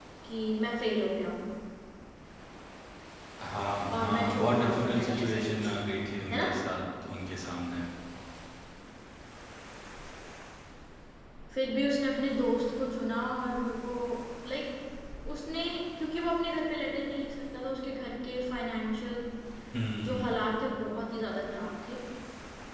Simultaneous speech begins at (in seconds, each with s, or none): 4.0 s